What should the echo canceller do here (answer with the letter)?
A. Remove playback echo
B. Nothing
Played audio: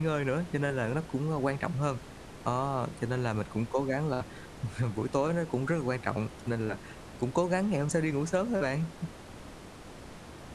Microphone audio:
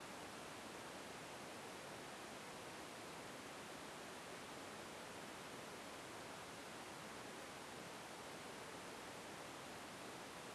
B